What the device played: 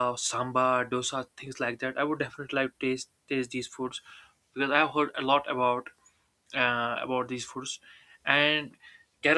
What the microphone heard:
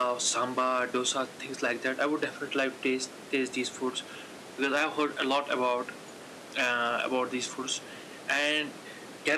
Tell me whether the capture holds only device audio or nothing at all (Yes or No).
Yes